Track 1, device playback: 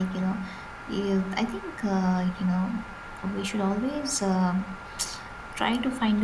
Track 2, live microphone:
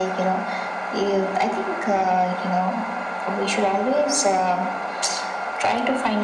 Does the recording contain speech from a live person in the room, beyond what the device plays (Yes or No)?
No